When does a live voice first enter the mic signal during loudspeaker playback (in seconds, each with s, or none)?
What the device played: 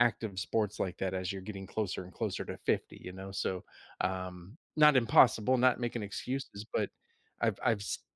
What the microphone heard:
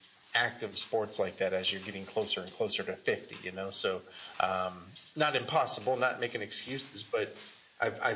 none